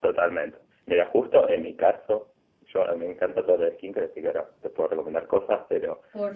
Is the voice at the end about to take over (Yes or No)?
No